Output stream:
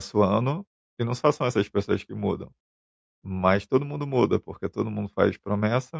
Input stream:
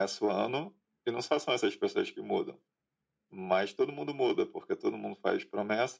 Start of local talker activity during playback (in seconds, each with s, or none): none